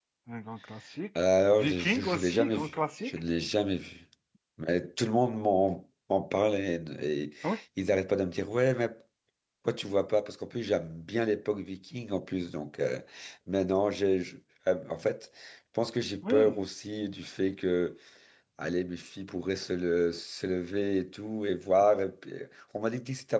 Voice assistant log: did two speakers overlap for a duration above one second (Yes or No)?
Yes